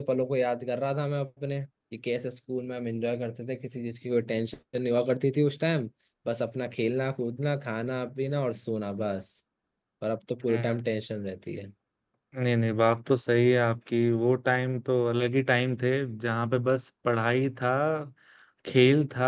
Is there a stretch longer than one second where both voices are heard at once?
No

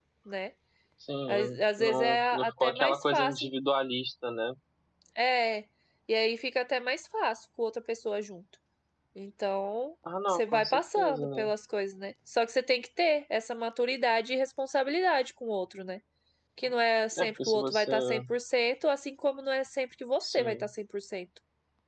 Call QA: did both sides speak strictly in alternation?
No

